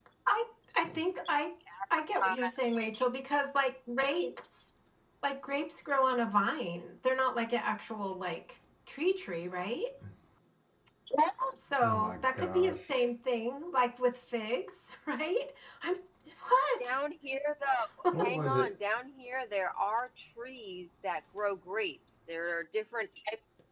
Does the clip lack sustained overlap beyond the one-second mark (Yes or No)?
No